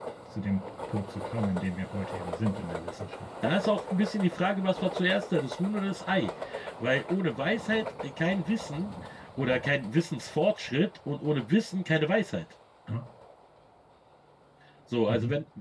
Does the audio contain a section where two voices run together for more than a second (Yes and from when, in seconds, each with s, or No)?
No